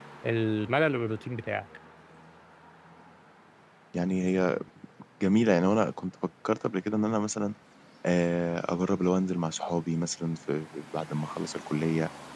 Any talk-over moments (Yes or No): No